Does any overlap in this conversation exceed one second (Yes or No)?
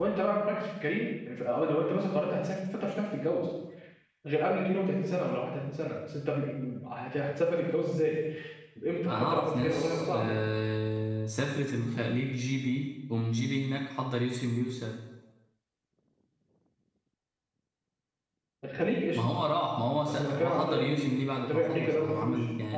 Yes